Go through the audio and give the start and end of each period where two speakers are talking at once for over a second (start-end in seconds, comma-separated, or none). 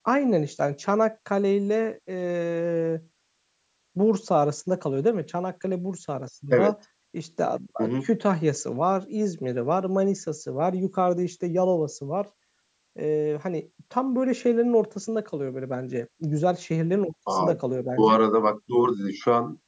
none